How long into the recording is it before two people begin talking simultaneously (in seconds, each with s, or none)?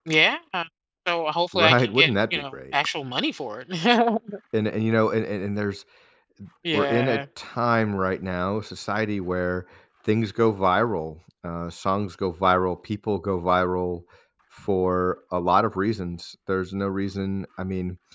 1.5 s